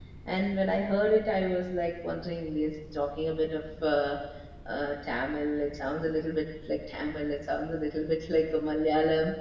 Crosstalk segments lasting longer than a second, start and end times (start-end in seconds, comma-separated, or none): none